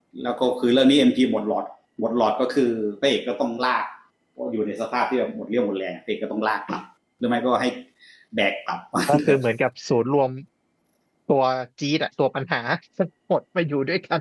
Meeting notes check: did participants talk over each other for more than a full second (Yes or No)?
No